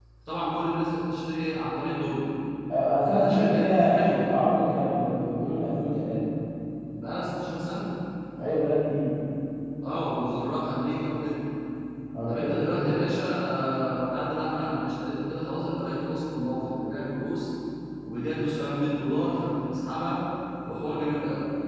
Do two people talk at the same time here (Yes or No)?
Yes